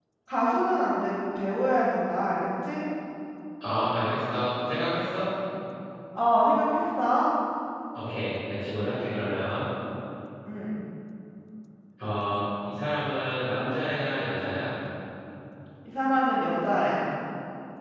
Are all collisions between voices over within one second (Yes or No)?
Yes